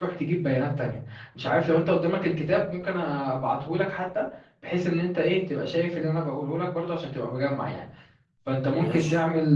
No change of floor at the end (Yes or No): Yes